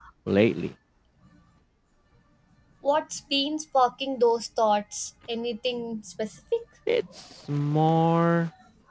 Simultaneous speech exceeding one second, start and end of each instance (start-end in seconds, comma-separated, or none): none